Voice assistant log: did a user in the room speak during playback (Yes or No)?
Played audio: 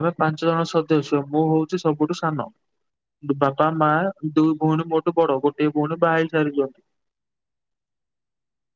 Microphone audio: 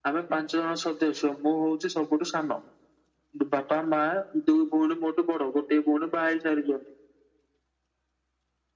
No